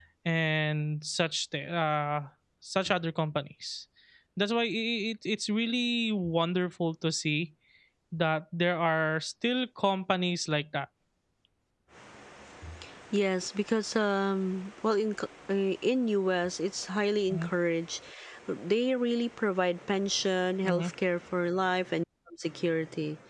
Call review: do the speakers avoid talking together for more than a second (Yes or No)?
Yes